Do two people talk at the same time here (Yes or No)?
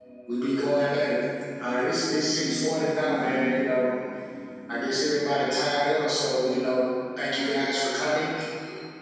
No